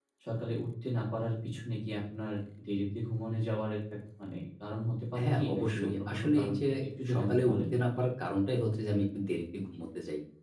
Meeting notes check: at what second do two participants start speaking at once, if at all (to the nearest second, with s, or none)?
5 s